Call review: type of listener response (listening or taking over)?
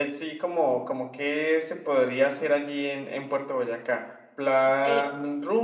listening